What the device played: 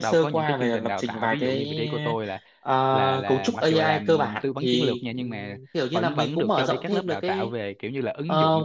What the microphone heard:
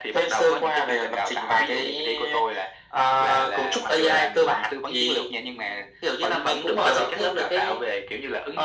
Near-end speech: none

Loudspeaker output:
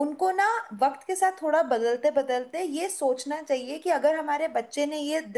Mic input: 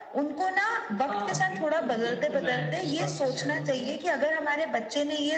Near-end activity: present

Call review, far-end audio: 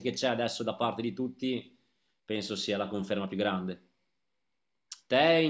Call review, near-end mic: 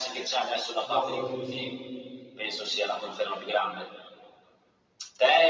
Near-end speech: present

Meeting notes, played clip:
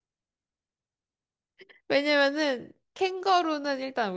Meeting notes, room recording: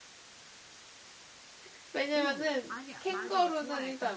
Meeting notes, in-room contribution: present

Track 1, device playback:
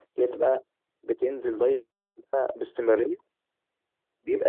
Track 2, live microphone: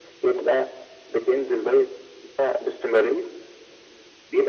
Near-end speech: none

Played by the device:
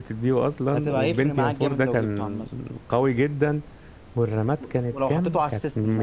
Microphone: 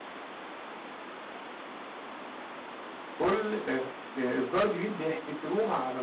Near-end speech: present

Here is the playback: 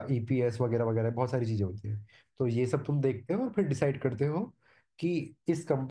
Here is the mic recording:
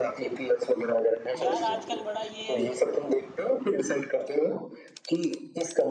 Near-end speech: present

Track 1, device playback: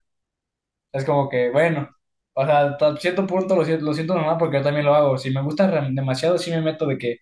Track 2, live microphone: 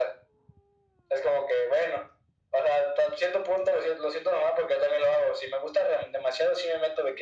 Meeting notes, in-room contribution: none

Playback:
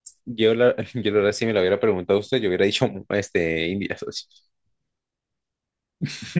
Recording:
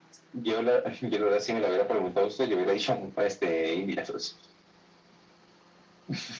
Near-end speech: none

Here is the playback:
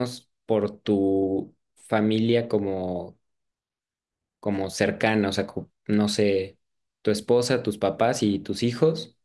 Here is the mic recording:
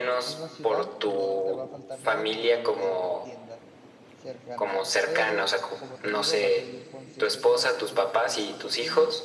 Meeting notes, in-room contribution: present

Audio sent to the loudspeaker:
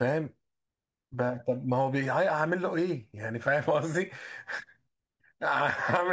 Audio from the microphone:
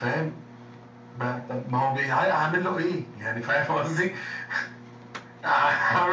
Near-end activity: none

